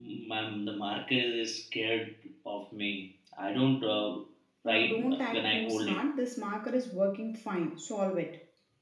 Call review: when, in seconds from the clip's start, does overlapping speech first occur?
5 s

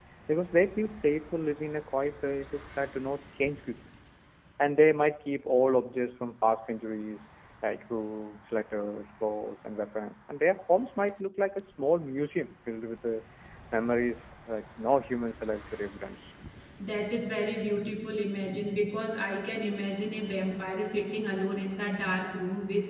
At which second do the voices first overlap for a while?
none

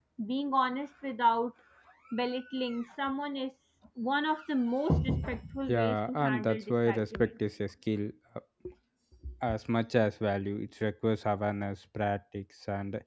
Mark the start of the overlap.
6 s

